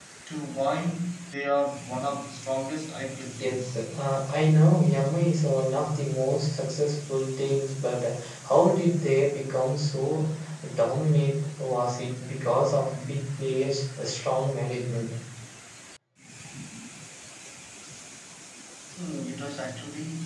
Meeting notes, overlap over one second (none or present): none